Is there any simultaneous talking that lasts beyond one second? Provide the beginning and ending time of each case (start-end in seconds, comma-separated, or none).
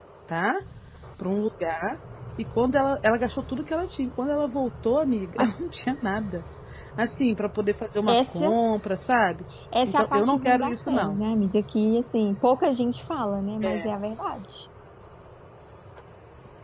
9.9-11.2